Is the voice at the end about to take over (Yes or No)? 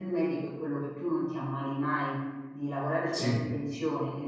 No